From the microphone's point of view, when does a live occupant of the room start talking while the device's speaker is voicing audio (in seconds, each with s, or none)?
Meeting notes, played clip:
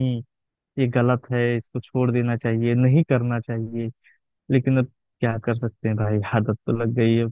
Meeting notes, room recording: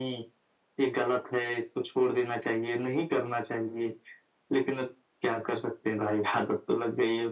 none